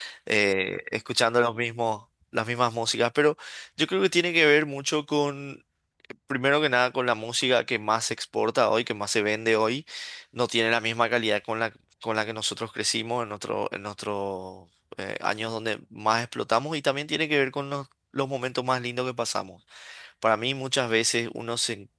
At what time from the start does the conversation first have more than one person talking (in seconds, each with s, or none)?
none